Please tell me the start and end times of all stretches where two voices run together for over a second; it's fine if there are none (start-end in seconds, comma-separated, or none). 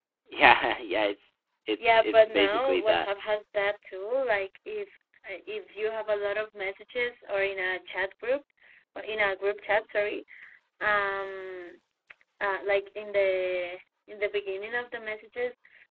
1.8-3.0